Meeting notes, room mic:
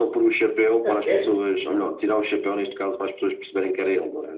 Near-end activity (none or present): present